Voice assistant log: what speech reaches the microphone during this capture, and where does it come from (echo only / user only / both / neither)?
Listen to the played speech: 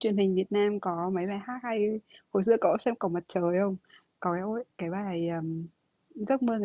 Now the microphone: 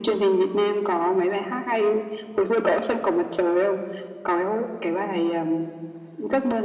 echo only